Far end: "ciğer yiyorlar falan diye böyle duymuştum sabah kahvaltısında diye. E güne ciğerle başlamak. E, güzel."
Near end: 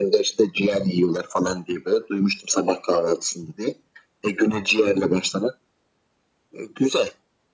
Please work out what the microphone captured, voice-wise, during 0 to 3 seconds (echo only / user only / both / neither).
echo only